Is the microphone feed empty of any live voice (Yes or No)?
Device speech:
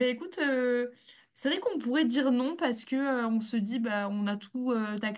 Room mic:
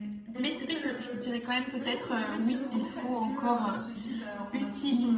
No